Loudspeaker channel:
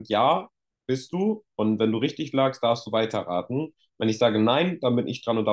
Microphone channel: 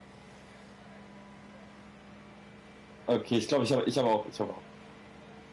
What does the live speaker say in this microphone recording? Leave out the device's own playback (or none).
Okay, ich glaube, ich habe ich habe auch, ich habe auch.